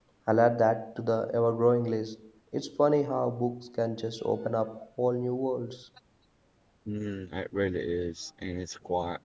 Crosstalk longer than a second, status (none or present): none